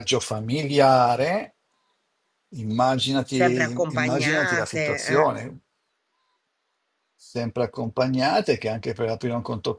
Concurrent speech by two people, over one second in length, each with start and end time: 3.4-5.3

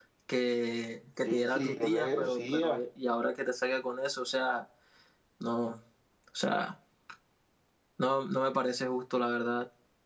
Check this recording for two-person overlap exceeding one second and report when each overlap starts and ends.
1.2-2.8

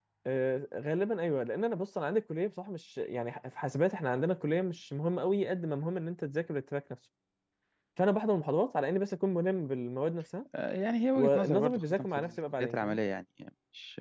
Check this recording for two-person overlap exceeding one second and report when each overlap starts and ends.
11.2-13.0

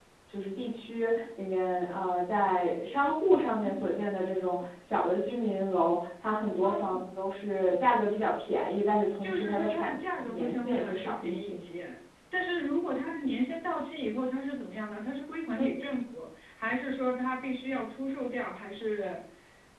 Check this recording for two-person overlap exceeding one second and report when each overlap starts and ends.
9.2-11.6

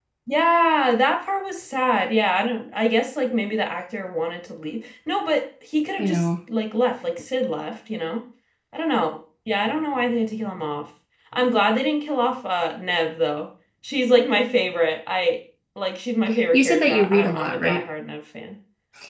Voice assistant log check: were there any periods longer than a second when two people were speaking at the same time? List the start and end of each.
16.5-17.8

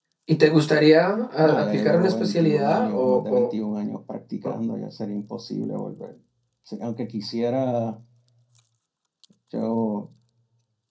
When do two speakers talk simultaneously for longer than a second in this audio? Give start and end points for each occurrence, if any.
1.4-3.5

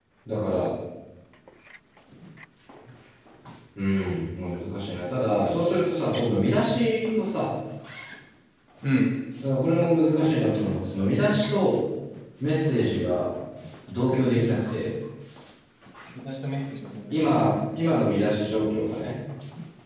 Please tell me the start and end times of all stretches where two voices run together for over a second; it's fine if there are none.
none

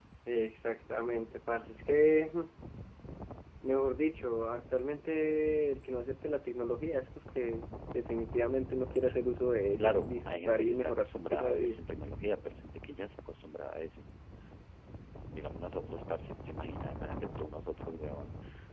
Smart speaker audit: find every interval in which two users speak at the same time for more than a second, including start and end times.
9.8-11.8

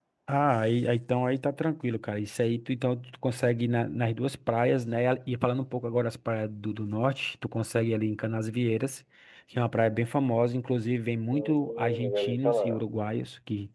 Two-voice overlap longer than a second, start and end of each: 11.3-12.8

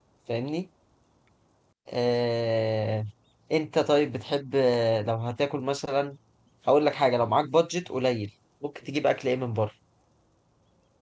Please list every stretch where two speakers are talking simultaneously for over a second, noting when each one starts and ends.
none

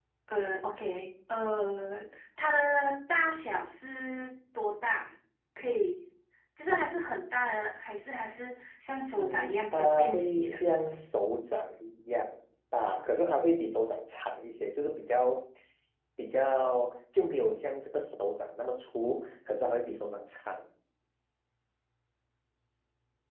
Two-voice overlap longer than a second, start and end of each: 9.2-10.6

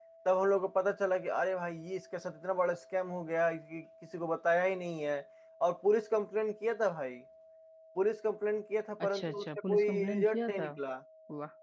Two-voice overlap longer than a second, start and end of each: 9.1-10.7

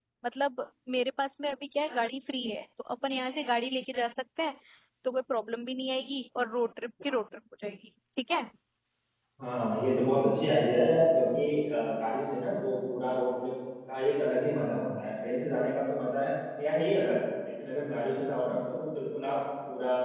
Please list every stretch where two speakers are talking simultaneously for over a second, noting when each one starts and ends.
none

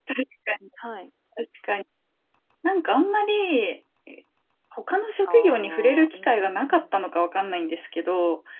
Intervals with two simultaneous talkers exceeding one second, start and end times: 5.3-6.8

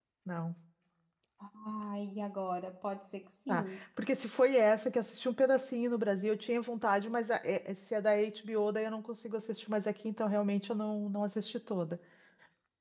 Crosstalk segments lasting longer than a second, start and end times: none

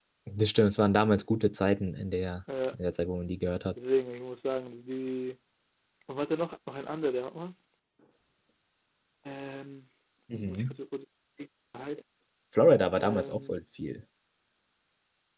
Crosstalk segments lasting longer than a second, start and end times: none

